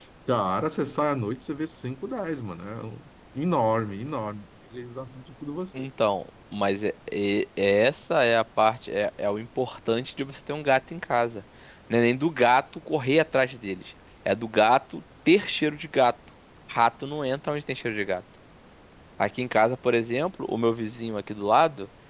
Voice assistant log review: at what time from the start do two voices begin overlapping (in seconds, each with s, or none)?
none